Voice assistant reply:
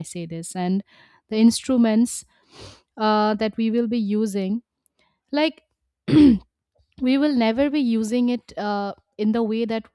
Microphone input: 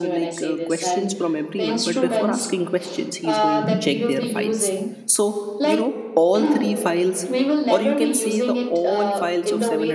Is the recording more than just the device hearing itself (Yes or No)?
Yes